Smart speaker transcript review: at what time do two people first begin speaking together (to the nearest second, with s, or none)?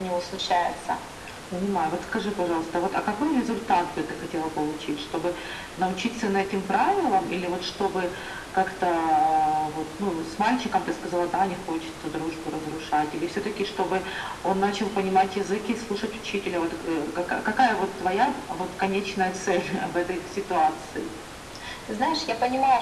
none